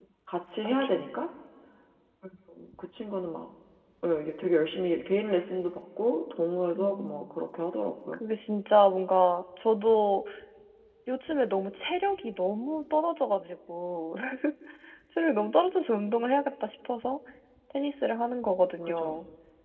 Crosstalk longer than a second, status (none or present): none